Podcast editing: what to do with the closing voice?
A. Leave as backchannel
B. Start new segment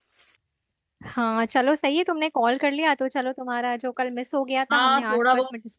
B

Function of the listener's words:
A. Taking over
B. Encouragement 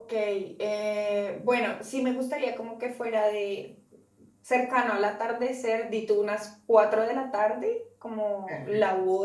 B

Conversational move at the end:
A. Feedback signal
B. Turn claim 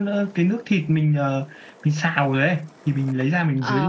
B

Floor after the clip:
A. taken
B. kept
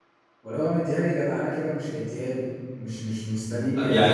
A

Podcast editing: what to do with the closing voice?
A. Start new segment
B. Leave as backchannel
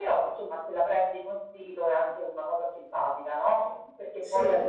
B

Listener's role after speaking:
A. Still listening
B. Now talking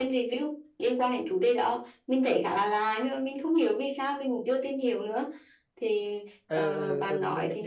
B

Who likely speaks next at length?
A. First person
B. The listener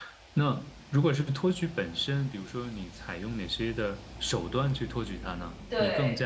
A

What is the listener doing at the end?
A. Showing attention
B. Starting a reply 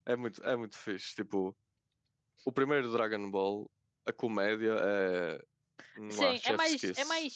B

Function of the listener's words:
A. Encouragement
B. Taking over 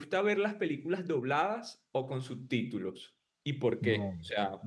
B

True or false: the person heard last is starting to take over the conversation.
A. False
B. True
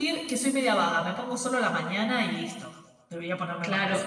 B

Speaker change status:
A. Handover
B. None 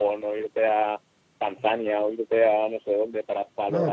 A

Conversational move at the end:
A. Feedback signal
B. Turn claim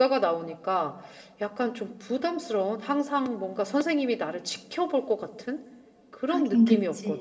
B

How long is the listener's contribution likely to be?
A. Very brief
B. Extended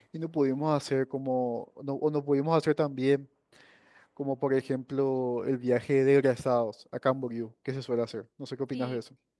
B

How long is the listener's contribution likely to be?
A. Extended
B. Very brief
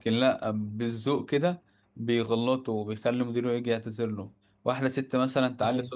B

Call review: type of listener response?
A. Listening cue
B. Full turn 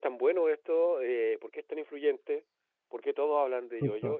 A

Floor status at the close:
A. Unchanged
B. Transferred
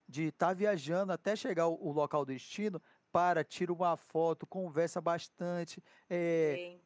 B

